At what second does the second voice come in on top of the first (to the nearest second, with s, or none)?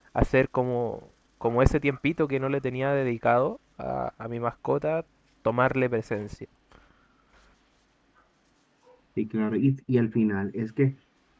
none